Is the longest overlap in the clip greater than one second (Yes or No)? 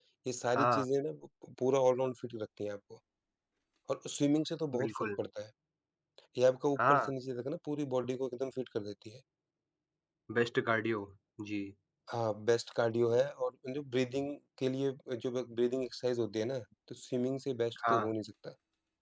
No